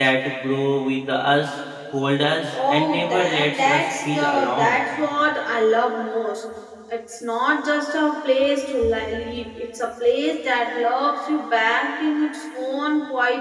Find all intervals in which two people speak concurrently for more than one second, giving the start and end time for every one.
2.7-4.8

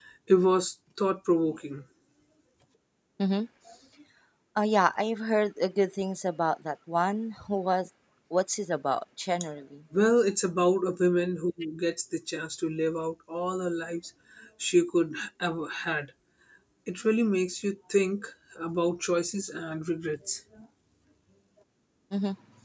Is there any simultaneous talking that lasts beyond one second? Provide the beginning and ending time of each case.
none

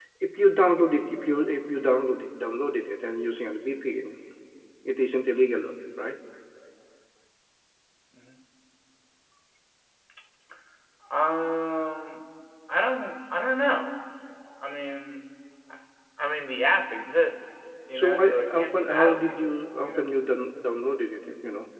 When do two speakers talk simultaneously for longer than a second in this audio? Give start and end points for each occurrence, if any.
18.0-20.1

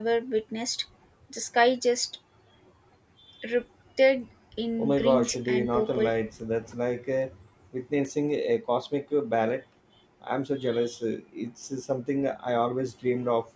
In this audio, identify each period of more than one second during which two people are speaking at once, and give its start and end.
4.8-6.1

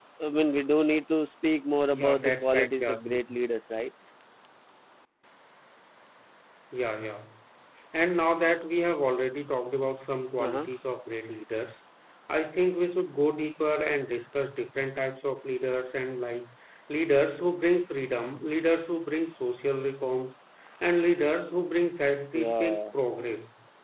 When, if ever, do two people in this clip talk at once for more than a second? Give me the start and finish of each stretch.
1.9-3.2

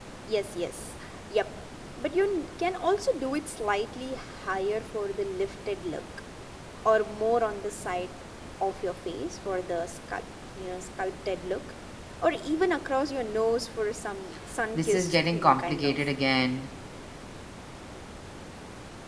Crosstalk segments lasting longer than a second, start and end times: 14.8-16.1

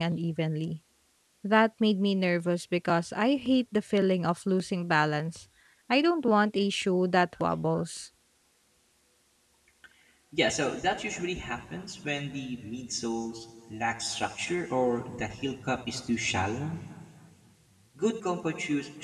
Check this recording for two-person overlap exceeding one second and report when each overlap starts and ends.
none

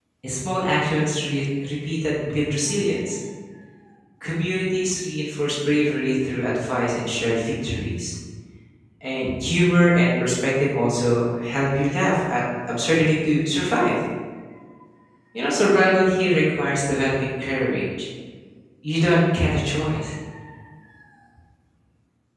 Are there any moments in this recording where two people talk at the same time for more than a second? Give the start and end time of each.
none

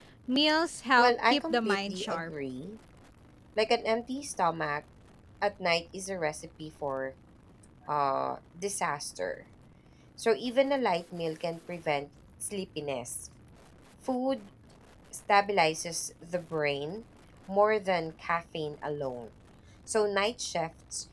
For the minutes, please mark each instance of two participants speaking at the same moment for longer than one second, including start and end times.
1.0-2.3

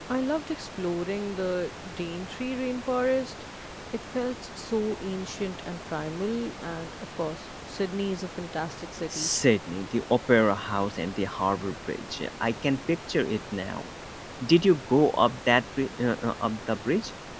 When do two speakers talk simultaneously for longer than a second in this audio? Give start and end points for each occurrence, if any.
none

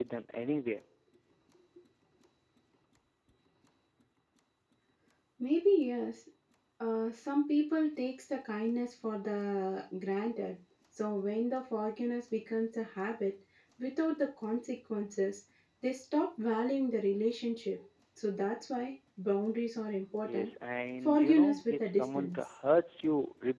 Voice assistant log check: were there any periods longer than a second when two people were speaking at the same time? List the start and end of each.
21.1-22.4

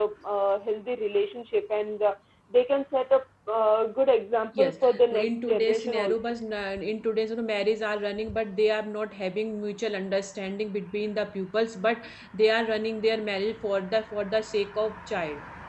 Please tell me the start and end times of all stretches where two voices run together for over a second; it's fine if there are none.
4.6-6.3

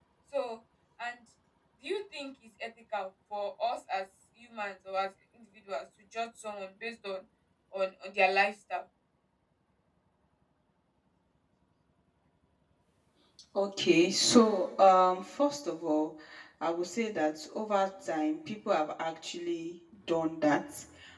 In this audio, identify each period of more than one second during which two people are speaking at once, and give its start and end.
none

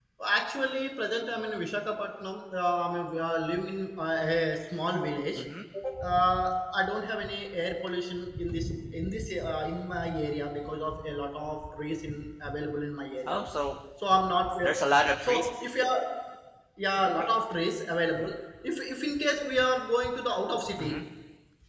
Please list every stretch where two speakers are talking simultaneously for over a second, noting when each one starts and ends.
none

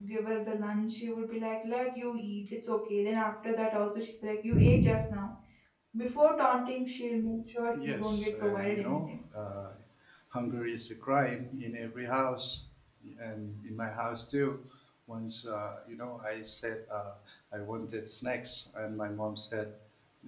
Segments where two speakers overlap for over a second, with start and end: 7.8-9.1

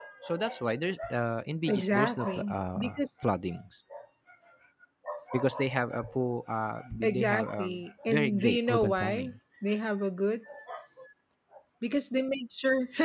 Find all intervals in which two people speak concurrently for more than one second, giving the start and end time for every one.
1.7-3.0, 7.0-9.3

